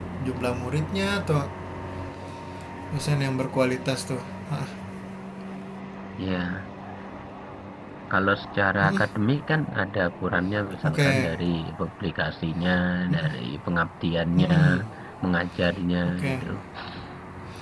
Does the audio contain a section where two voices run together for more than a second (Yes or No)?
No